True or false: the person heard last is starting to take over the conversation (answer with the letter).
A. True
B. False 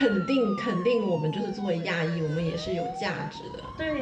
A